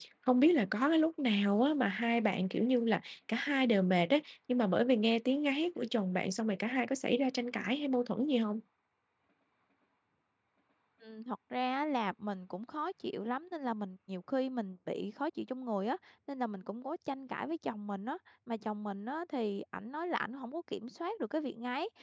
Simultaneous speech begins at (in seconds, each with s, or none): none